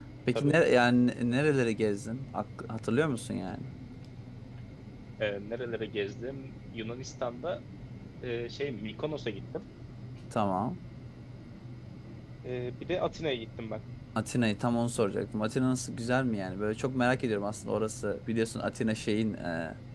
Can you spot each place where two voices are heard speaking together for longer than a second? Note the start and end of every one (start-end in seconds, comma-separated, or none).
none